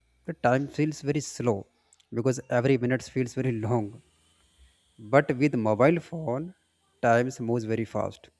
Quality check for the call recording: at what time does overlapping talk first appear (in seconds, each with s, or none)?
none